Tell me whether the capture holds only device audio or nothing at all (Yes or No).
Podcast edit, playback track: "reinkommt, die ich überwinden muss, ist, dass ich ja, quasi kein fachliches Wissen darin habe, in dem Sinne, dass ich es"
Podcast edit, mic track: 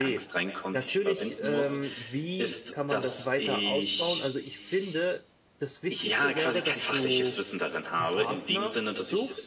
No